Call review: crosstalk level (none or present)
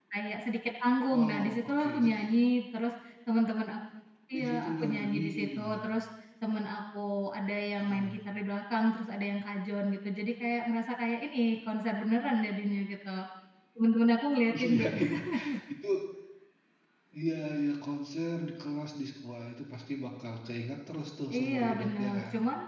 present